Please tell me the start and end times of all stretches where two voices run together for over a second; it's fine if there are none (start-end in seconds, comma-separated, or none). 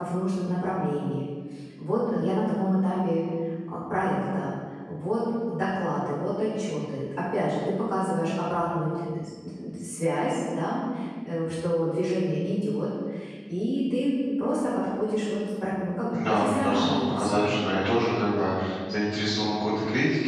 16.1-17.6